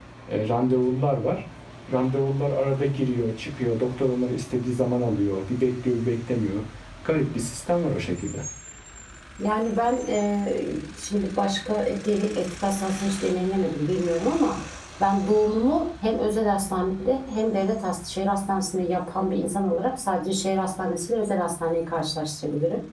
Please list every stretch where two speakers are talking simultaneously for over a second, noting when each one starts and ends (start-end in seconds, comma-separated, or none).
none